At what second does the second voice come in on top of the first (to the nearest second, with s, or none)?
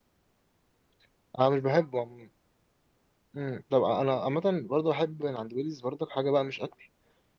none